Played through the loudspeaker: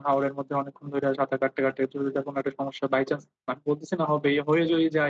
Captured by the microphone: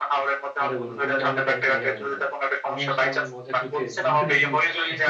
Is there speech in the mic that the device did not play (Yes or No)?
Yes